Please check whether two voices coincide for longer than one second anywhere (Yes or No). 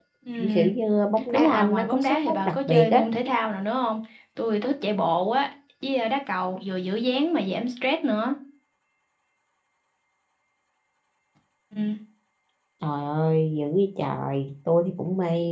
Yes